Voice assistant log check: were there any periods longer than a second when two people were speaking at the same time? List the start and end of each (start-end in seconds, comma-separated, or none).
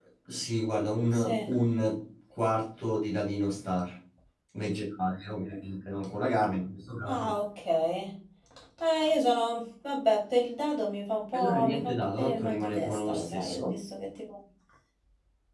11.3-13.8